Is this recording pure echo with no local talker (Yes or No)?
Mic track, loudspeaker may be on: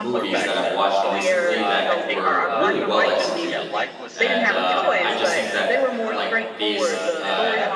No